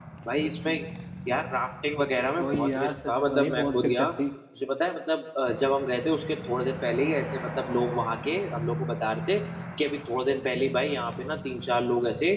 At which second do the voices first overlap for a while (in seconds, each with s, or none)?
2.4 s